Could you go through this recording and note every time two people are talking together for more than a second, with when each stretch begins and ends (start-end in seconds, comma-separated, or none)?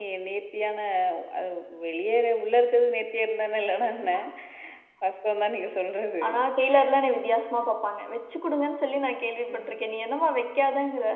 none